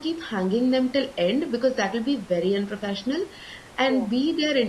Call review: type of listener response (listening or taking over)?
listening